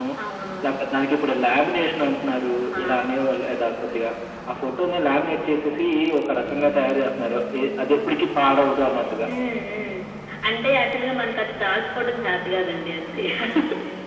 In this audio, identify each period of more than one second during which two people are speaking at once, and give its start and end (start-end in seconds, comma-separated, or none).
none